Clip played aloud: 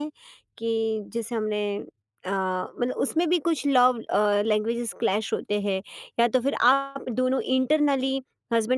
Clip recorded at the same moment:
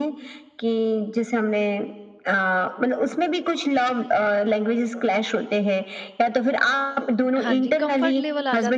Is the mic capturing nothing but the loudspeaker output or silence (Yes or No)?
No